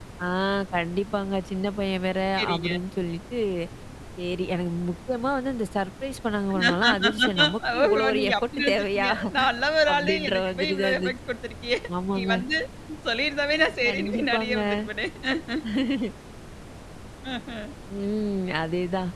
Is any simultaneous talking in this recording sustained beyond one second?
Yes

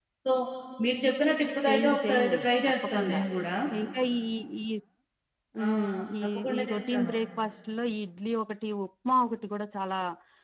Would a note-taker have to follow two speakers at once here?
Yes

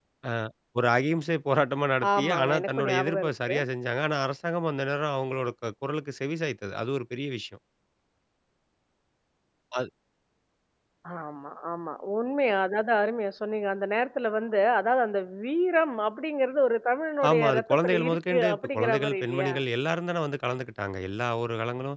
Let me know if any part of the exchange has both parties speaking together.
Yes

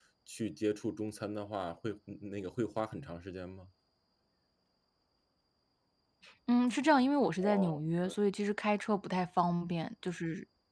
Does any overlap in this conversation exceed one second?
No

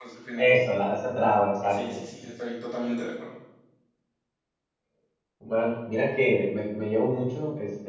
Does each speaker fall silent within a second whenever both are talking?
Yes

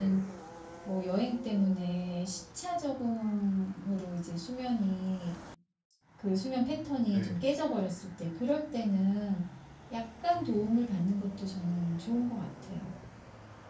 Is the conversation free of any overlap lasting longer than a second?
Yes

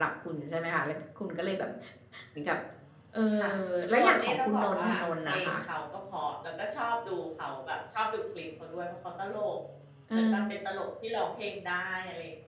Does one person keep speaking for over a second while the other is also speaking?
Yes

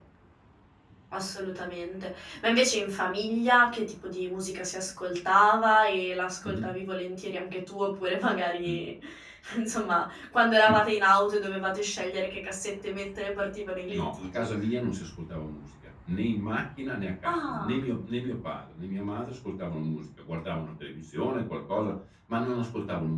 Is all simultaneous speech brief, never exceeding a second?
Yes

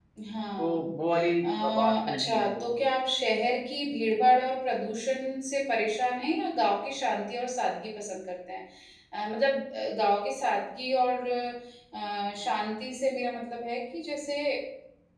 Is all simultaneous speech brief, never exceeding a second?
No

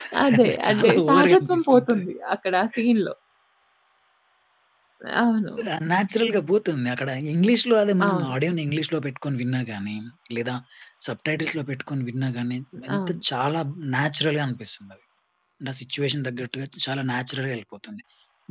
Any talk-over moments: Yes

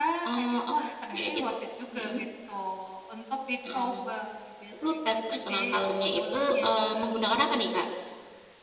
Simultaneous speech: Yes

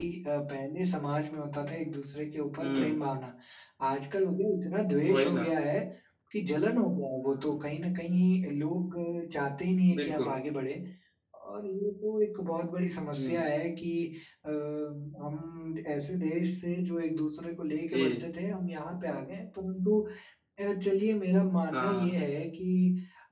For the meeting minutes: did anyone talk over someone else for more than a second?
No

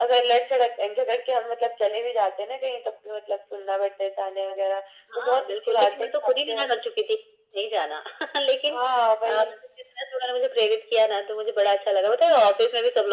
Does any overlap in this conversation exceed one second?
Yes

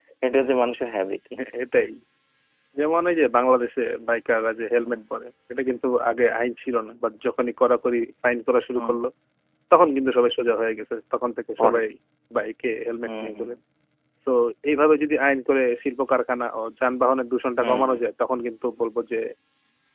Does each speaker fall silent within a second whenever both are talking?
Yes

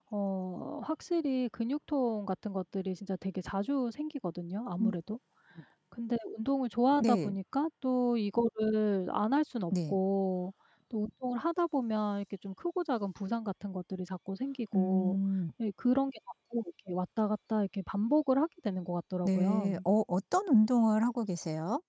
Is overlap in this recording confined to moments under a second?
Yes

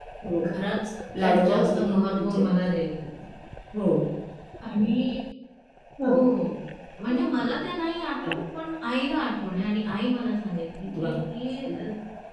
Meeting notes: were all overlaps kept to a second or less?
No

